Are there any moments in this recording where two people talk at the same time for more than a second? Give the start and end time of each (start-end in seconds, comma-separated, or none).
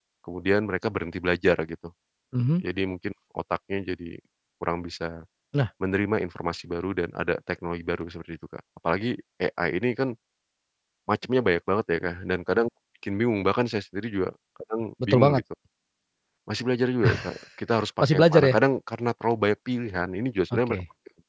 none